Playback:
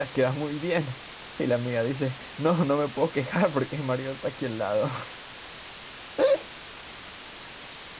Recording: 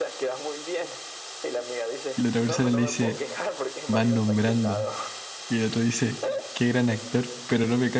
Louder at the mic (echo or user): user